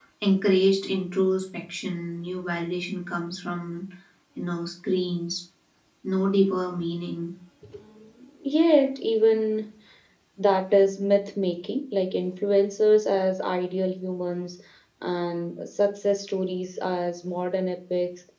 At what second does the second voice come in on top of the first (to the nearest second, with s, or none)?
none